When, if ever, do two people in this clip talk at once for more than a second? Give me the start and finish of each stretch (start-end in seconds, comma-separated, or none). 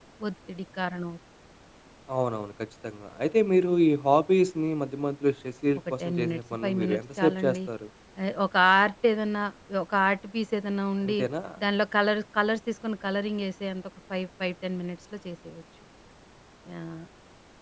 6.0-7.6